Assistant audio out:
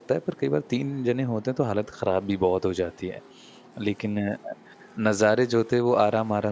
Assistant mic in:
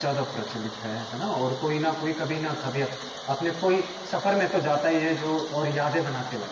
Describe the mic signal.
user only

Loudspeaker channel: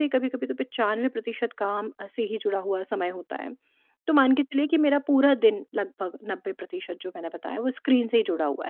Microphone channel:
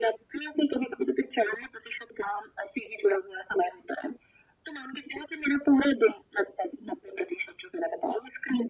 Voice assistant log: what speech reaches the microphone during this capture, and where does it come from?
echo only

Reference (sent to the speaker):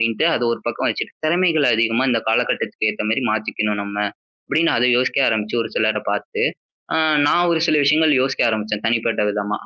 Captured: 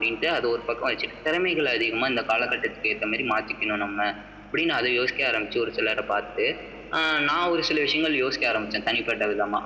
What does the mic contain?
echo only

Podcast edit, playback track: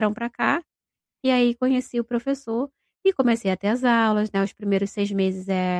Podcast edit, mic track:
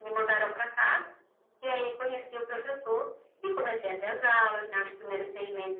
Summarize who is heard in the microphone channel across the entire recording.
echo only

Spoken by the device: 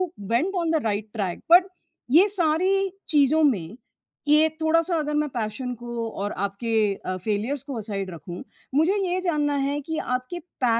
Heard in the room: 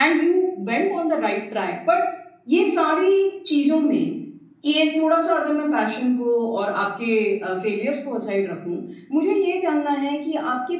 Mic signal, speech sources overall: echo only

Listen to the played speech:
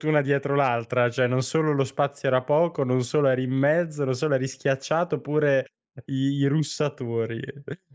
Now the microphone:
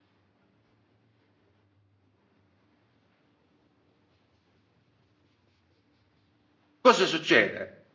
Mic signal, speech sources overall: user only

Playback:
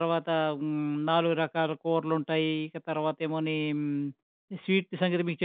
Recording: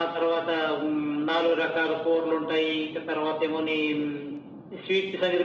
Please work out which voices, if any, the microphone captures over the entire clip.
echo only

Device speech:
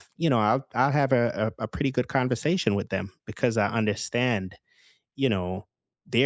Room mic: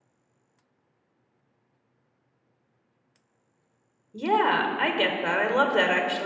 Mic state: user only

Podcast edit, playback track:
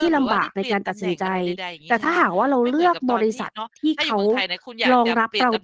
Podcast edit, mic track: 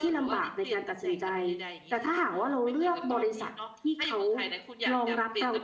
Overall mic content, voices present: echo only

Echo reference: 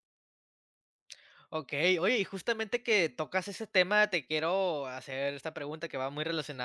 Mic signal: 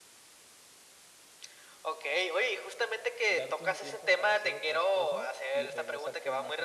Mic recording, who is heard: both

